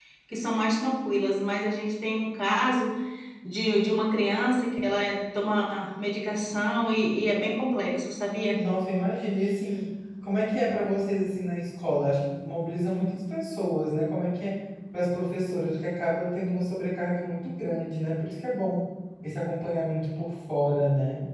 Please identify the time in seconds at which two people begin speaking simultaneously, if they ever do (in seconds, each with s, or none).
none